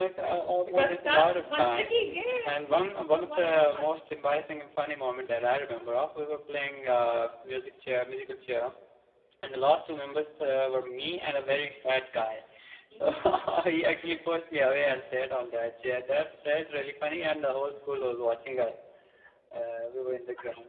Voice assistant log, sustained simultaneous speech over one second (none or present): present